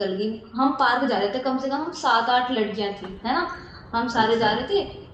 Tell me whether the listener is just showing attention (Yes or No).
Yes